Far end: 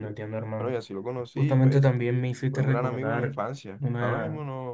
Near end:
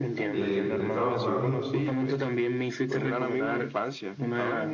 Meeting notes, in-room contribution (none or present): present